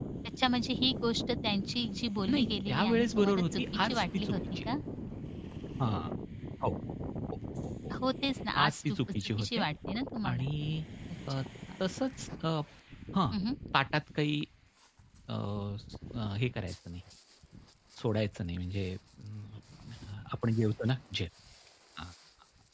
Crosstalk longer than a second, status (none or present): present